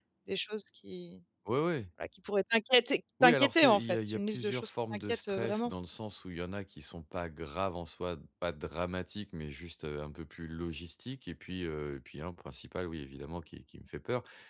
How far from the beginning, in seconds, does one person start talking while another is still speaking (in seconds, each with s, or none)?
3.2 s